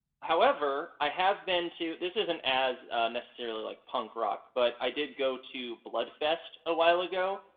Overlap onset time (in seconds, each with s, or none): none